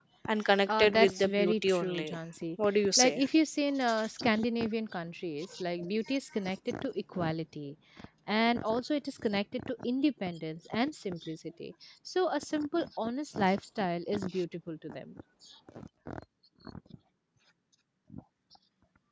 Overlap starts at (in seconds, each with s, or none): 0.7 s